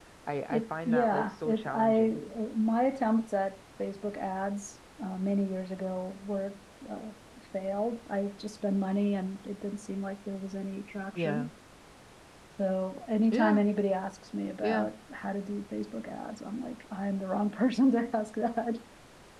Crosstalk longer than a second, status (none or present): present